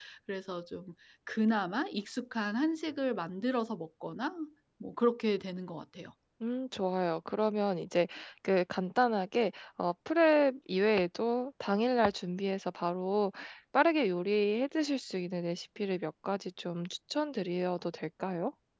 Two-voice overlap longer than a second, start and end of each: none

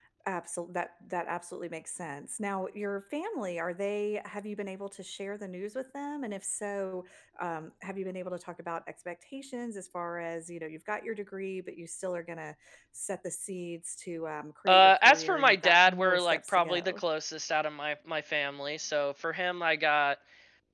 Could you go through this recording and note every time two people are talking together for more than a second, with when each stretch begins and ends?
14.7-17.0

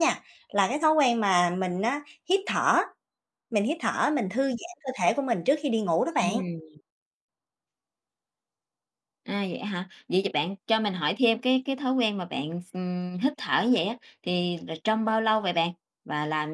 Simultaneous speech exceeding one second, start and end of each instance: none

